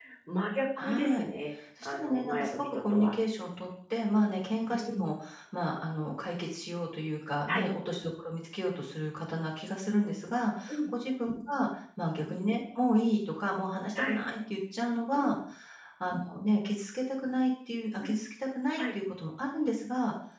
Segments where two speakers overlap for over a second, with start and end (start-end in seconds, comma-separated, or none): 1.9-3.2